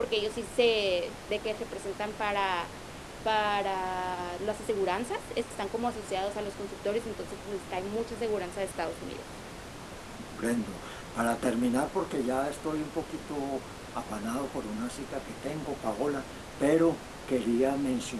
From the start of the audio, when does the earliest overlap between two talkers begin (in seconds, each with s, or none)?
none